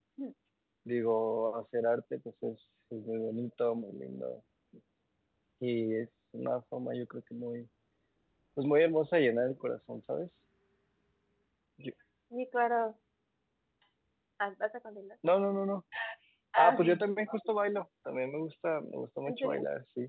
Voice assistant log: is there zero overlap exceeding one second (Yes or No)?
Yes